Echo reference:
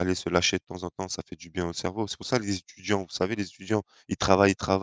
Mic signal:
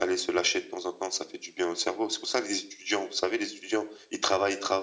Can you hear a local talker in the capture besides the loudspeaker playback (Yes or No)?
No